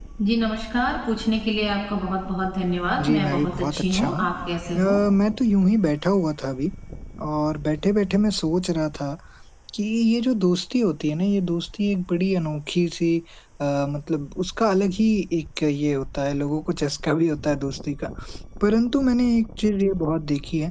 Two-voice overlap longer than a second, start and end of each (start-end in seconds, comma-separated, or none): 3.0-4.2